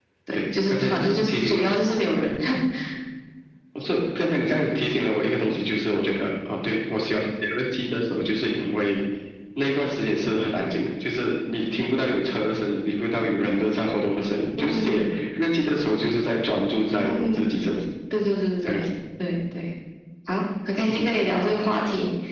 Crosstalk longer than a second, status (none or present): present